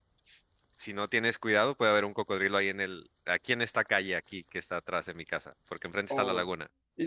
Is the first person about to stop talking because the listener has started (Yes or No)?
Yes